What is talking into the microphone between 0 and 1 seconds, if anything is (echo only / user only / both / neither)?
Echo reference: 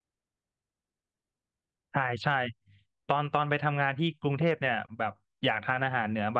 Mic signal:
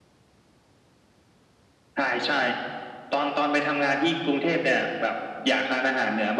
neither